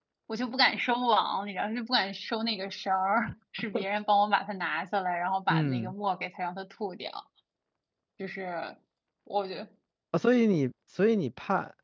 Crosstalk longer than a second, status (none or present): none